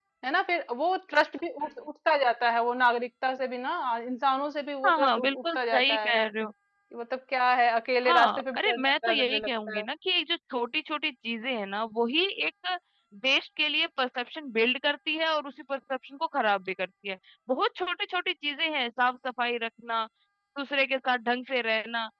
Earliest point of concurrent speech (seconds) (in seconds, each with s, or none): 4.9 s